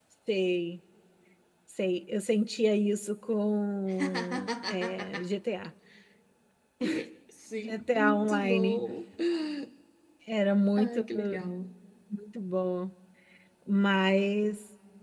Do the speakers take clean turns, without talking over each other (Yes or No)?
No